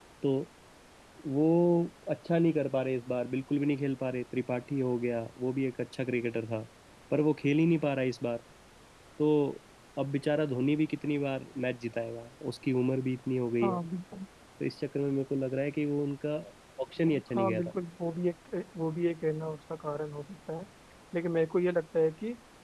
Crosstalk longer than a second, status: none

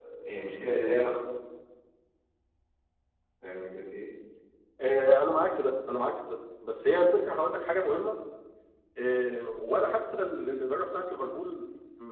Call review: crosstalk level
none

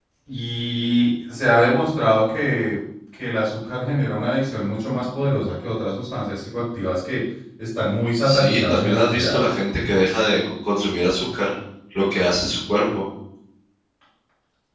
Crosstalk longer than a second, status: present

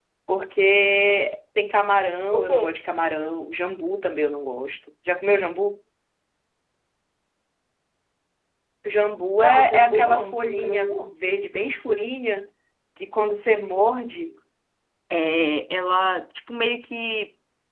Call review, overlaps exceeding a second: present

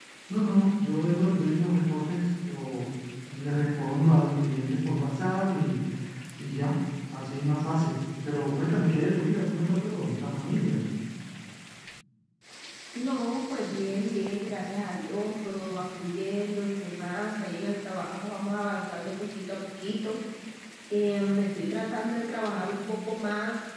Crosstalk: none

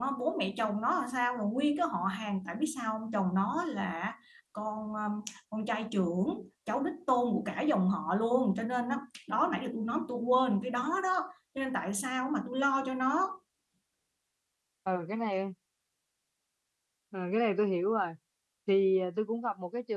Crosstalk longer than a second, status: none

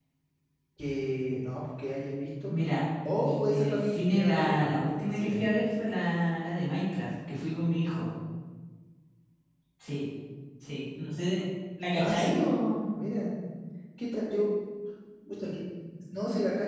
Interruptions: present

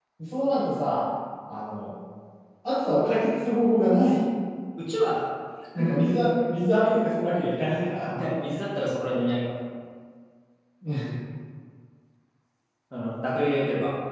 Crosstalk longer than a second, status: none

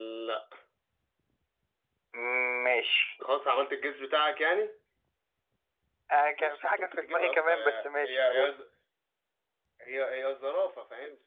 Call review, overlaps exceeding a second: present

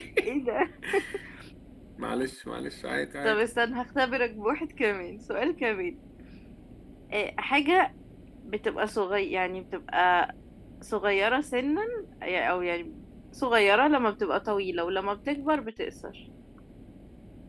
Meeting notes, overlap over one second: none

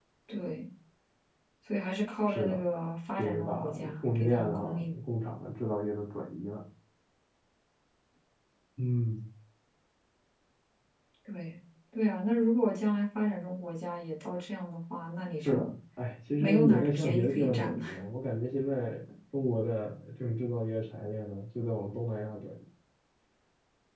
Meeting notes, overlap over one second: present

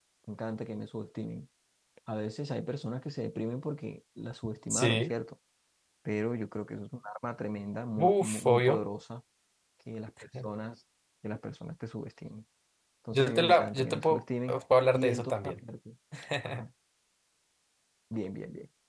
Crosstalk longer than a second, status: present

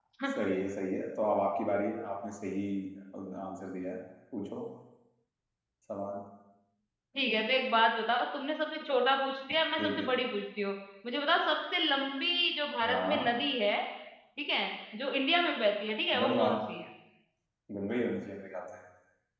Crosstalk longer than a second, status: none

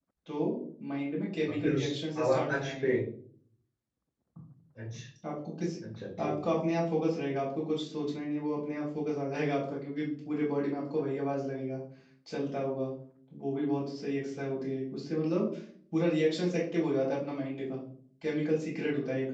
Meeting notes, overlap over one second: present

